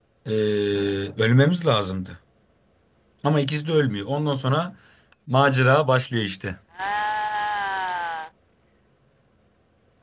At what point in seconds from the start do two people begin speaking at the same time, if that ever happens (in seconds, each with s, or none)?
none